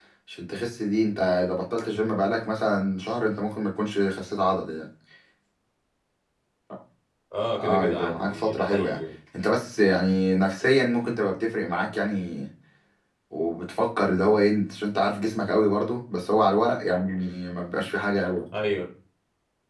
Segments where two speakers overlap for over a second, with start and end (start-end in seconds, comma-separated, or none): 7.5-9.0